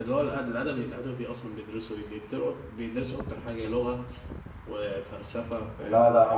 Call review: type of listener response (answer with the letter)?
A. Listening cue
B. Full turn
B